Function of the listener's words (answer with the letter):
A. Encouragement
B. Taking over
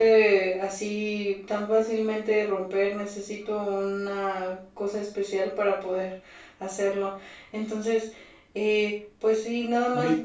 A